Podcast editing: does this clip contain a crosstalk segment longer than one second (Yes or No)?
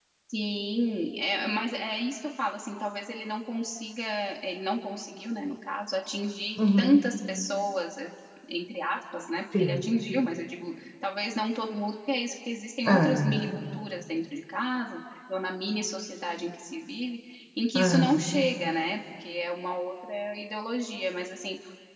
No